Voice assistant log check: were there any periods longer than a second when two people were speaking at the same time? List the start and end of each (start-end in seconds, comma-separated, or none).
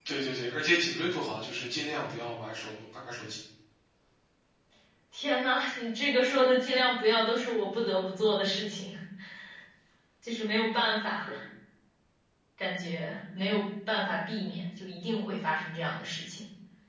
none